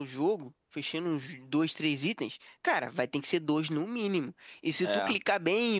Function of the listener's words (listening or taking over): listening